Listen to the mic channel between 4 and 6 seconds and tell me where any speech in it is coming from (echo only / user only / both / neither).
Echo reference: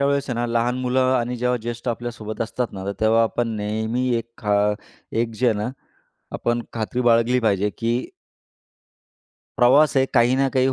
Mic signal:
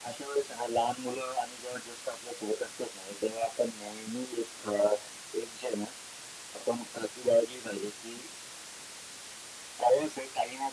echo only